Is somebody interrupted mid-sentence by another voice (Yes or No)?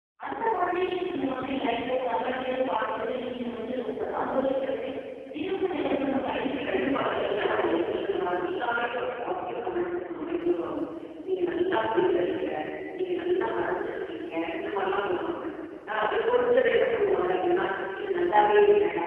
Yes